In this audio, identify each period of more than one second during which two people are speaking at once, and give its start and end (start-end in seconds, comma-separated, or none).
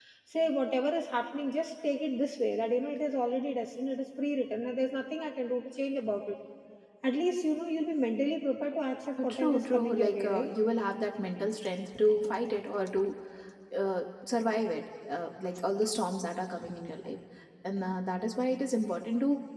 9.2-10.5